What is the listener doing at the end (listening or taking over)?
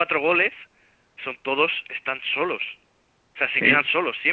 listening